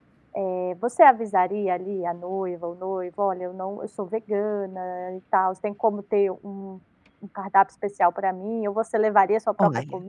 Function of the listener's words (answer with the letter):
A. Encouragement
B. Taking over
B